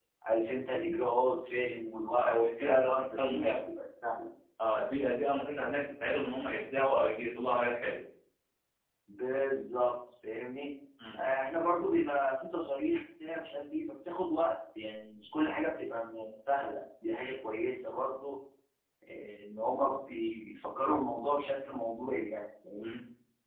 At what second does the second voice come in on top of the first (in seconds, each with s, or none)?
2.2 s